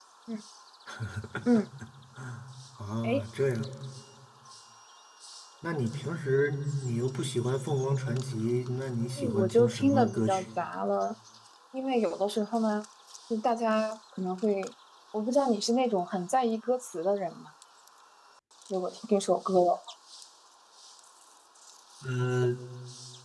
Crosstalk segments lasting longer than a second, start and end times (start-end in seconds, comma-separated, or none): 9.2-10.4